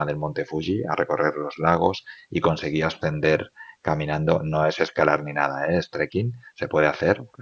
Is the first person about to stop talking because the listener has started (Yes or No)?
No